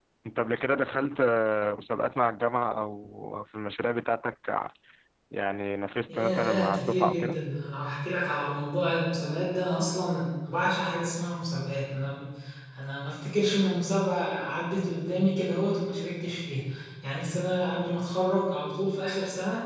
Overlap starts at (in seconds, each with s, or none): 6.1 s